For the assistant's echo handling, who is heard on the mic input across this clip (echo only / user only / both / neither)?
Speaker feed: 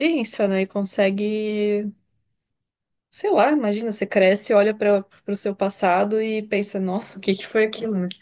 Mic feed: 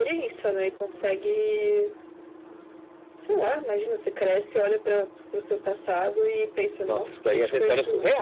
both